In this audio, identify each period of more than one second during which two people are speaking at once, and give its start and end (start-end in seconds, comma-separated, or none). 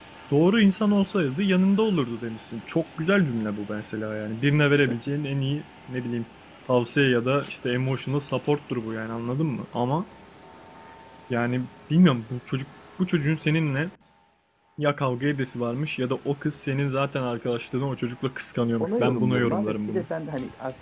18.8-20.1